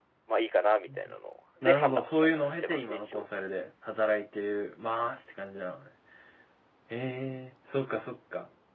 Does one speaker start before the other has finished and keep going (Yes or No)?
Yes